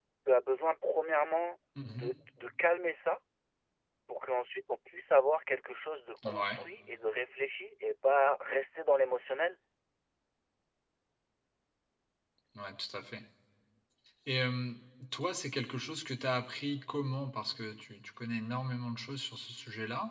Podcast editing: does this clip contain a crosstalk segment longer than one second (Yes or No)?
No